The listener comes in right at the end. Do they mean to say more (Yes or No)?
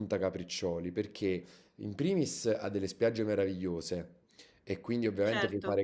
No